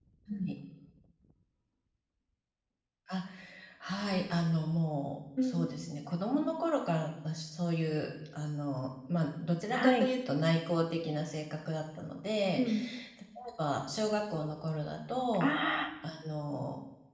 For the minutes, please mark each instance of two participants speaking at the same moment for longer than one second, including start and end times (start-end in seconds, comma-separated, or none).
none